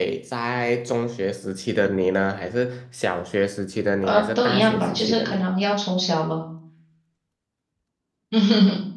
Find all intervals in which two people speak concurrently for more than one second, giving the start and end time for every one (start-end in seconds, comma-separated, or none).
4.0-5.5